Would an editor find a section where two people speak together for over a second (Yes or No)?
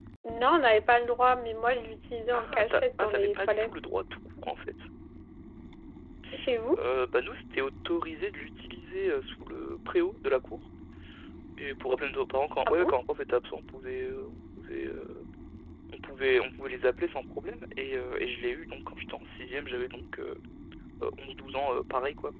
Yes